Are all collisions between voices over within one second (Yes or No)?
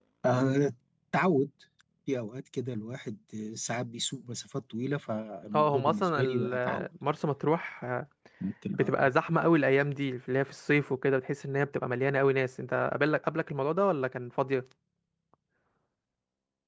No